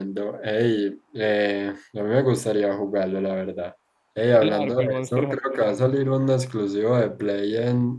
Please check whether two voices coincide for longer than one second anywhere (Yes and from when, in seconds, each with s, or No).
Yes, from 4.3 s